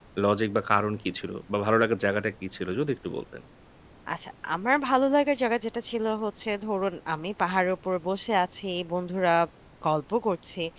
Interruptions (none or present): none